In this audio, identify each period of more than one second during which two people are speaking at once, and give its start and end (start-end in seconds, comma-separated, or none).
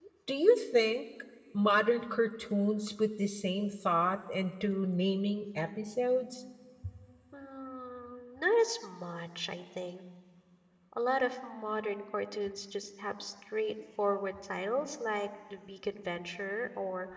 none